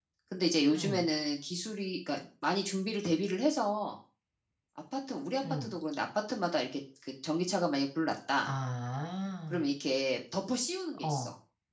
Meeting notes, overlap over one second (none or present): none